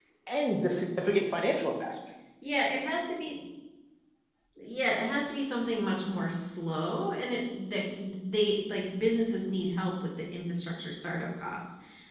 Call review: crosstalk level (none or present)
none